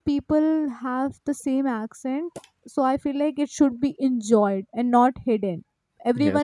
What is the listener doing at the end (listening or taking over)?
listening